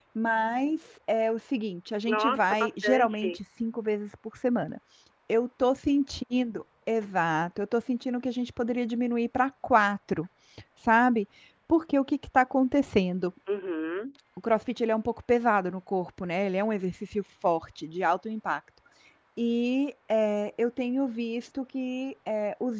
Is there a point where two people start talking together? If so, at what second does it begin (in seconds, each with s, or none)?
2.1 s